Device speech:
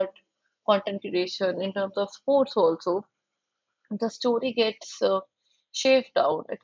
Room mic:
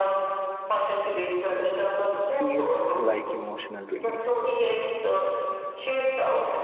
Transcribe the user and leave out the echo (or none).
feels like emotional relief.